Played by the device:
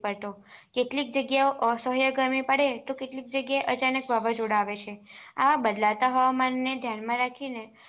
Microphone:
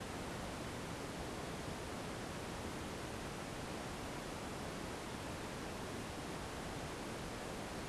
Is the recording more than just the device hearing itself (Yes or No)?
No